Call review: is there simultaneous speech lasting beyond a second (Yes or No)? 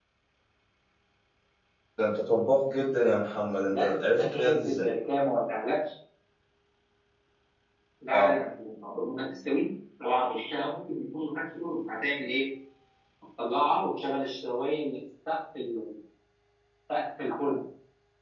Yes